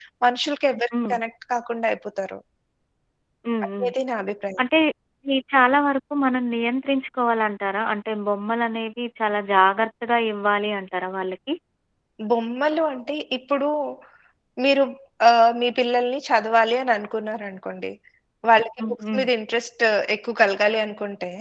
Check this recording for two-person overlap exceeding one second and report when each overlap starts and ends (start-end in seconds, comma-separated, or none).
none